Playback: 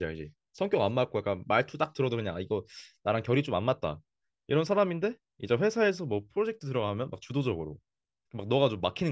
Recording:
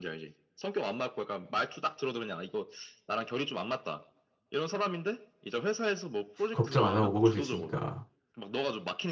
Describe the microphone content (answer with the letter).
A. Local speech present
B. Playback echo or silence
A